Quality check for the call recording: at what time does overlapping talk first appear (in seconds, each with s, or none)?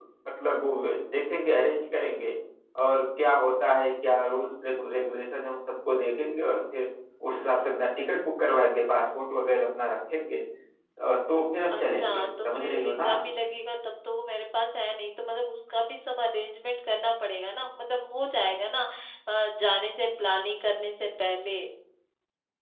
11.8 s